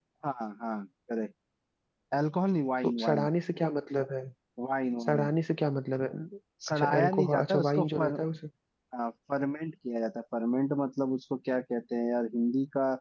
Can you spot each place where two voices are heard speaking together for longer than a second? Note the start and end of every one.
6.7-8.2

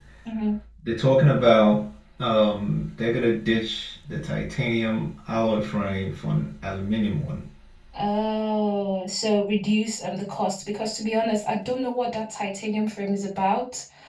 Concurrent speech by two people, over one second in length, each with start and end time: none

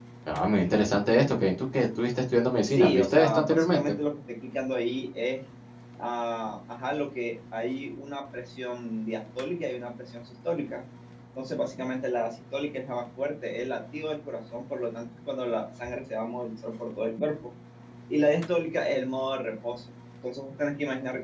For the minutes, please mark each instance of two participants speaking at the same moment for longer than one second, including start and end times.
2.6-4.0

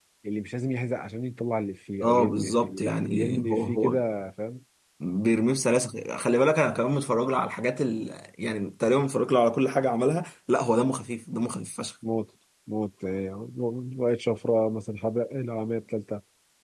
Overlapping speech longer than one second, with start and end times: 2.0-4.0

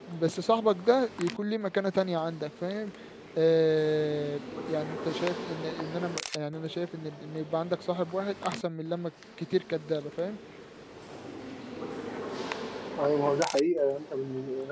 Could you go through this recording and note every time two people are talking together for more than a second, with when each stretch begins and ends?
none

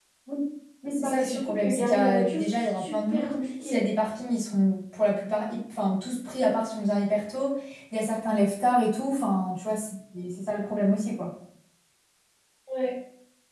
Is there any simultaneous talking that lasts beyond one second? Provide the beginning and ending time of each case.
1.0-3.8

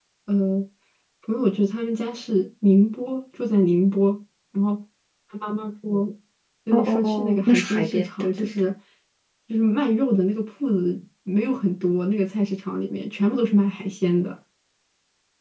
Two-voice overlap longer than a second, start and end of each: 6.7-8.5

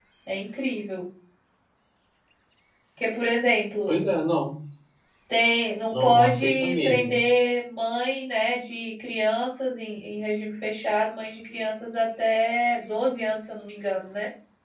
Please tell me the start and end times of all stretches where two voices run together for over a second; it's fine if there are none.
5.9-7.2

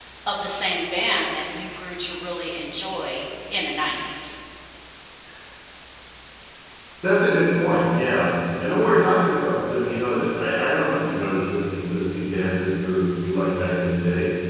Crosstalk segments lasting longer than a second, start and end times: none

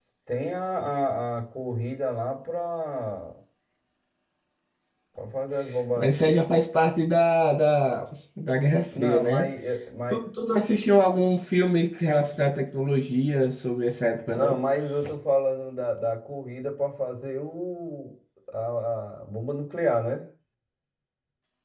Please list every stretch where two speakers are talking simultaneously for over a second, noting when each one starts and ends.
none

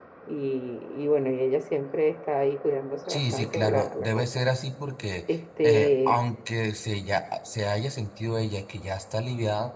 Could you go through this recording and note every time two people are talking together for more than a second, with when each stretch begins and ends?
3.1-4.5

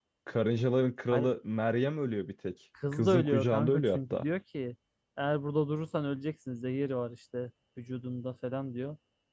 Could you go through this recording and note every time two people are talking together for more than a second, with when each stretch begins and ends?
2.9-4.2

